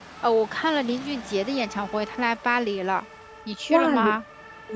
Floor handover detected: Yes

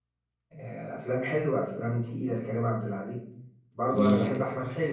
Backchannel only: Yes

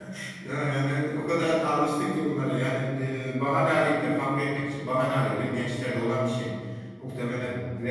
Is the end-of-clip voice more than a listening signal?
No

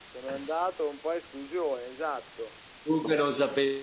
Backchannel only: No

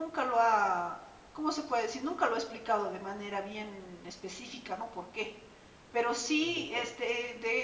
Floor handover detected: No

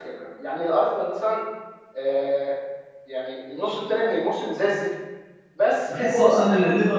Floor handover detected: Yes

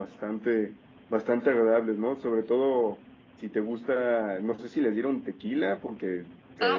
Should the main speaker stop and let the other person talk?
Yes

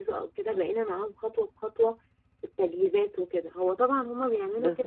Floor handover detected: No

